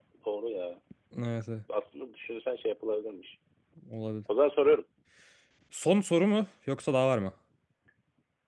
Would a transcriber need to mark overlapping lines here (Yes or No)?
No